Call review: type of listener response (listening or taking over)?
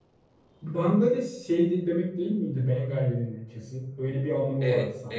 taking over